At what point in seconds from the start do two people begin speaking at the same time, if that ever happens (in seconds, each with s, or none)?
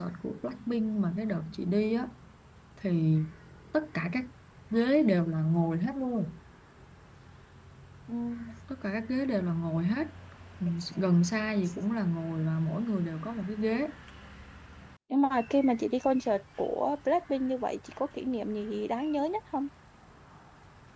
none